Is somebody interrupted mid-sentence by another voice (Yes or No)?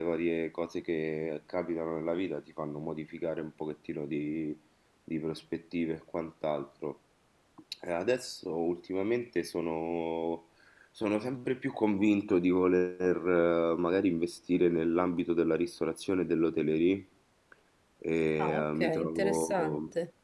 Yes